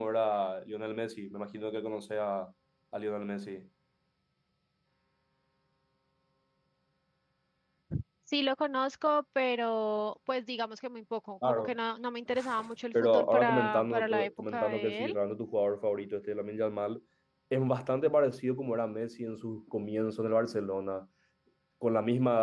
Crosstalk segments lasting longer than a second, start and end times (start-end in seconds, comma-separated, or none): 13.0-15.2